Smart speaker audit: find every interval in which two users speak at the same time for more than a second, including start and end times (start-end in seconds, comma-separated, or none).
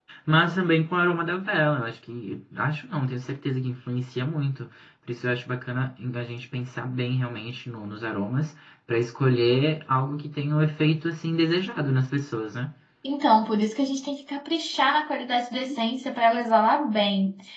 none